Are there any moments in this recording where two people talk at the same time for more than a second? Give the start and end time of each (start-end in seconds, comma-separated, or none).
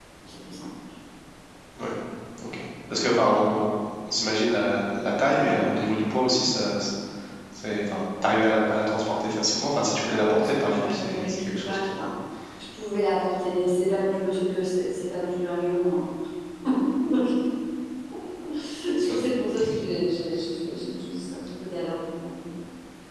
10.1-12.1